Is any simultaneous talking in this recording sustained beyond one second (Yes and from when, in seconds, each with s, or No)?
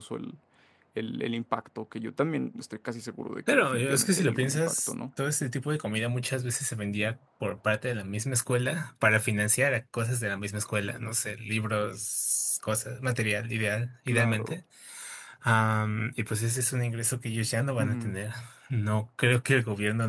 Yes, from 3.5 s